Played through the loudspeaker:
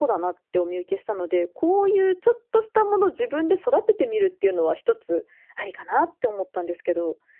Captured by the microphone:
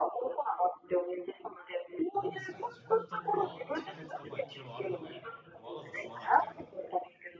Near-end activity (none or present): present